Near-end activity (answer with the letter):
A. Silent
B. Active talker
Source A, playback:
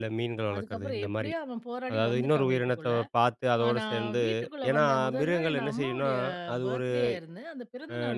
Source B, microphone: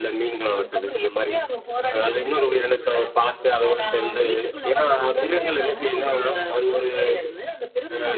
A